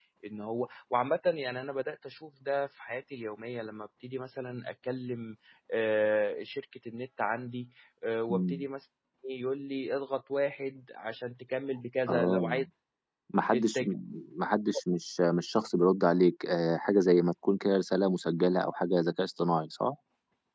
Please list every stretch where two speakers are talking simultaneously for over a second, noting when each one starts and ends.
none

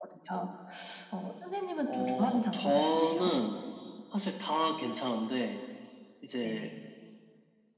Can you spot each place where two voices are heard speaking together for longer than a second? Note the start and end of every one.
1.9-3.3

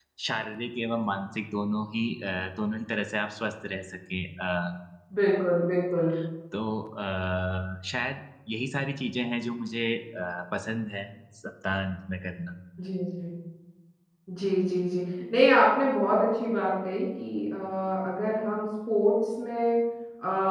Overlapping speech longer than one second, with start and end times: none

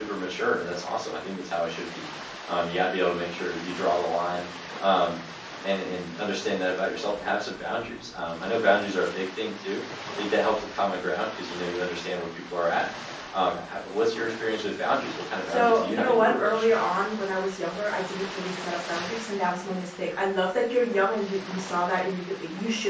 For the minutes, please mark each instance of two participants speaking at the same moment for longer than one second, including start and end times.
15.5-16.8

